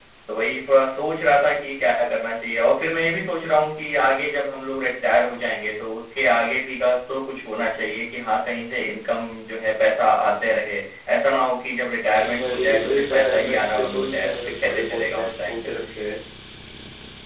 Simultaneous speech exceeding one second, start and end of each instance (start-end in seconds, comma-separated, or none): 12.4-15.7